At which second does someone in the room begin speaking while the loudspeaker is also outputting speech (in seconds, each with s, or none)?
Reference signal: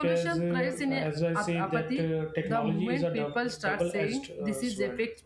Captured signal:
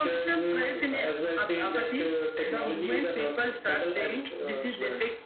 none